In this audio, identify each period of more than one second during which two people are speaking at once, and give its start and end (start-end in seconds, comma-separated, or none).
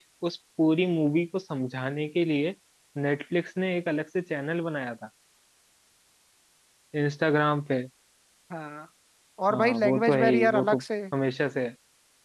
9.5-10.8